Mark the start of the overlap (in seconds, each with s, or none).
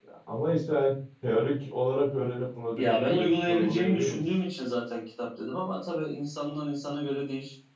2.8 s